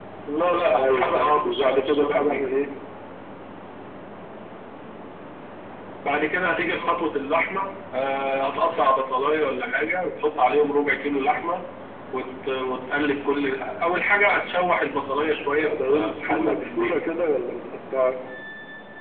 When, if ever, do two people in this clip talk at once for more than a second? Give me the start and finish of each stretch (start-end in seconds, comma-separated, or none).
0.8-2.4, 15.6-16.9